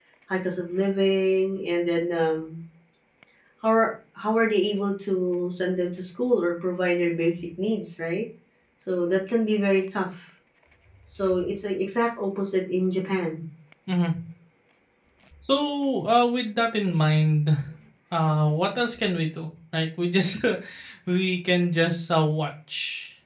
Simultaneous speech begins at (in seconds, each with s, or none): none